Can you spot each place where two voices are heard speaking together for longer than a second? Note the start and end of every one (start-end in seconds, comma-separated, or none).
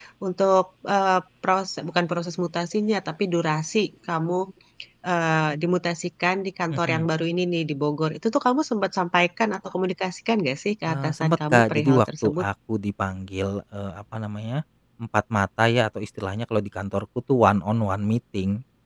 10.9-12.4